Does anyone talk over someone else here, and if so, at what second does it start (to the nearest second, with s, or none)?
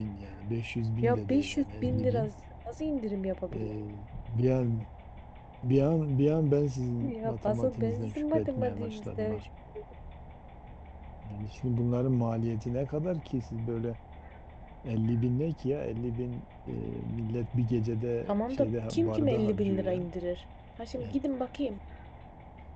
1 s